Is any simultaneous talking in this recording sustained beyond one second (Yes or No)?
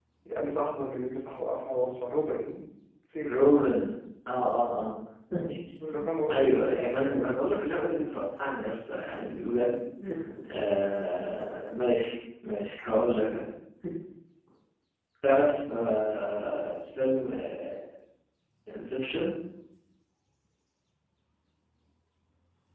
Yes